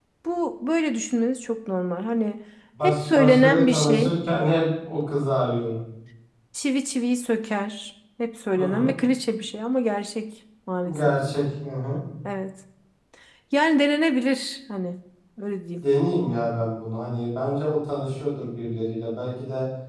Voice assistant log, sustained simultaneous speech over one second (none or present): present